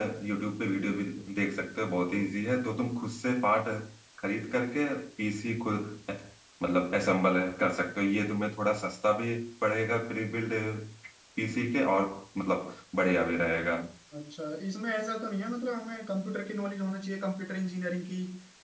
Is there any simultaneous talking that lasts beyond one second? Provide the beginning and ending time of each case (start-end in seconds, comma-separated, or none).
none